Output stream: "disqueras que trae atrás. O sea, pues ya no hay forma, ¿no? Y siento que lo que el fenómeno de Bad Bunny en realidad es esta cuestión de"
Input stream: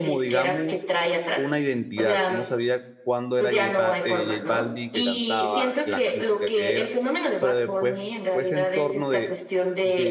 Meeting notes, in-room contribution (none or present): present